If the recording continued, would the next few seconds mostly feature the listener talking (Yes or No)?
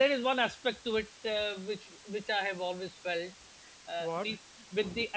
No